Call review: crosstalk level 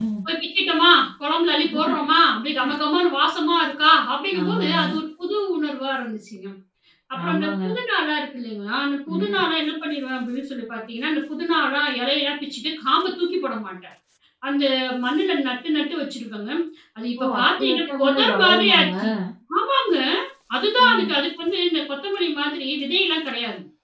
present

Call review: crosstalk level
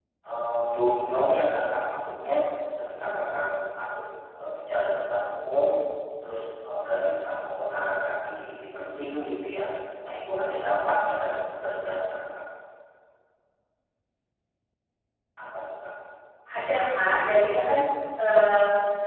none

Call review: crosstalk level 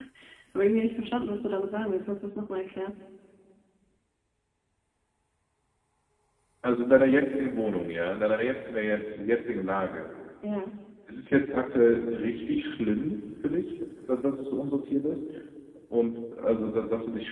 none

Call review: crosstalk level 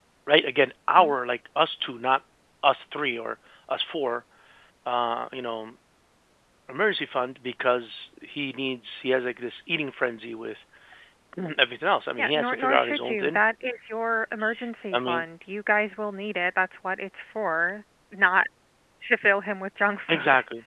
present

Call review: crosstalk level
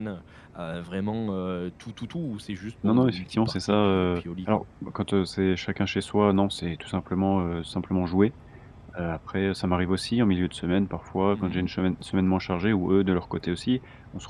present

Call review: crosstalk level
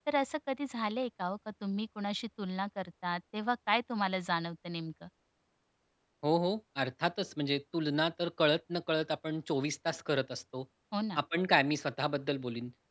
none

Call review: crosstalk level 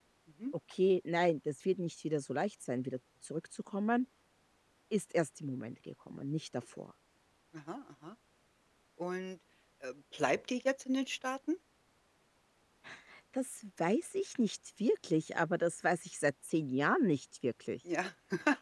none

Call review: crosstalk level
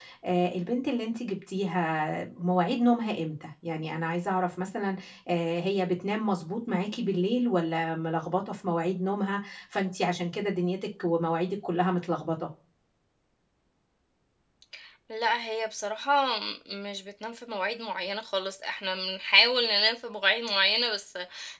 none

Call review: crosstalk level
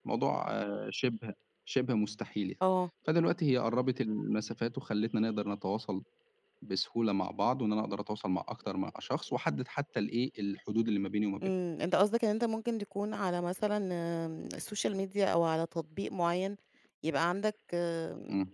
none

